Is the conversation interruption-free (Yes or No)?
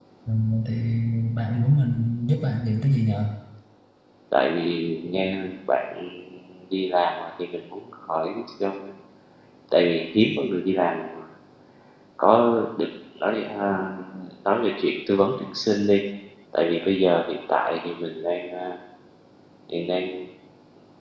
Yes